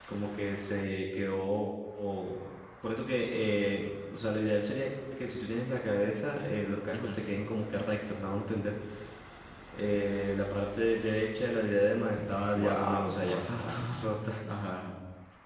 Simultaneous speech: Yes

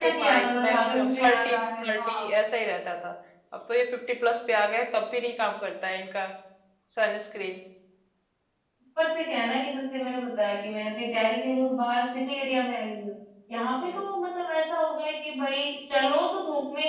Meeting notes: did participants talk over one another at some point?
Yes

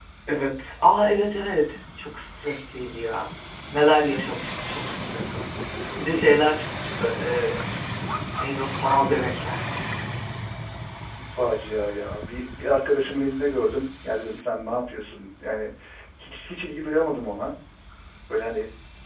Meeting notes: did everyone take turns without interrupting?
Yes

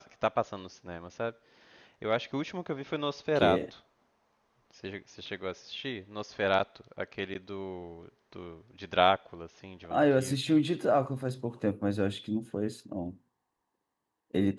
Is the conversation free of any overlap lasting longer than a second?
Yes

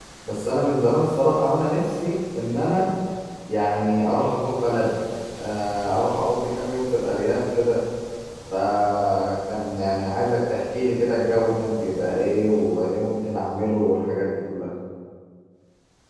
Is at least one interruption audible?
No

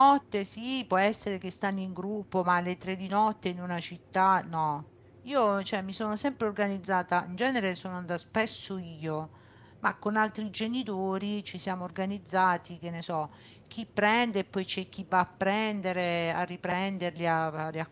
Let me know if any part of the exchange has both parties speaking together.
No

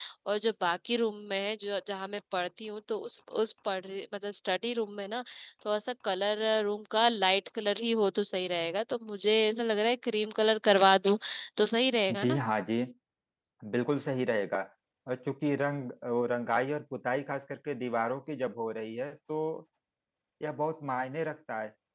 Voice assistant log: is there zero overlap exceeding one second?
Yes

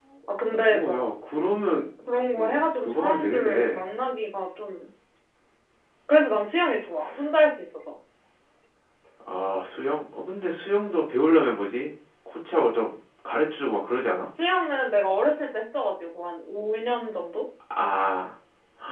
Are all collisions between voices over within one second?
No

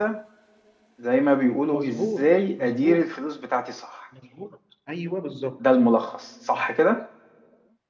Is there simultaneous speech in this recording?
Yes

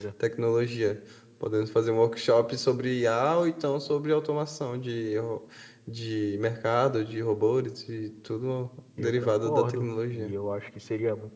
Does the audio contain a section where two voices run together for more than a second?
Yes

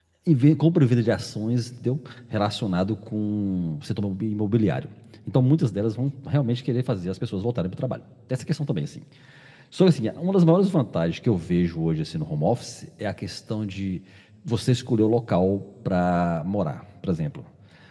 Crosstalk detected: No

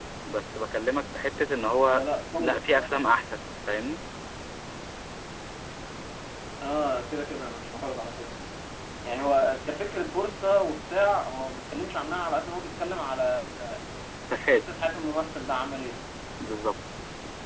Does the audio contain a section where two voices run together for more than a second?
No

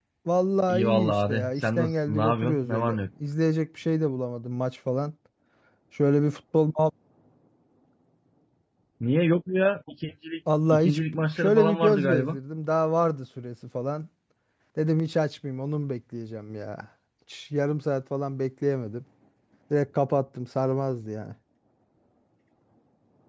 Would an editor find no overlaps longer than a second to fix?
No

